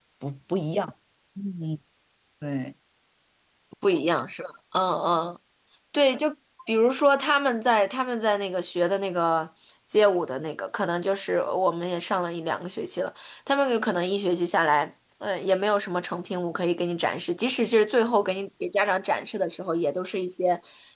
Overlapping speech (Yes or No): No